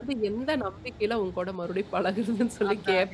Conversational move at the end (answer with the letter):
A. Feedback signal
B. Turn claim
B